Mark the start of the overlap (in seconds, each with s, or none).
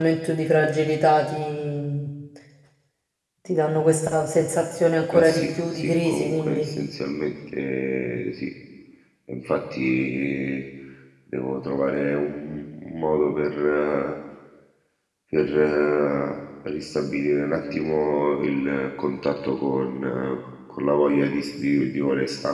5.1 s